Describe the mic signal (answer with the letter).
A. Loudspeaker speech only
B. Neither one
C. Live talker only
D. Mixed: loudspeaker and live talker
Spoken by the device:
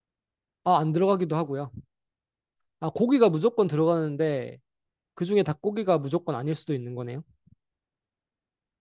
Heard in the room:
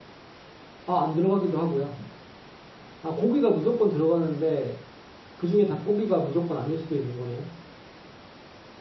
A